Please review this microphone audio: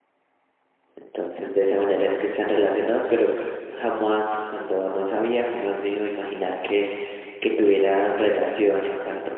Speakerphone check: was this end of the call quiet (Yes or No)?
No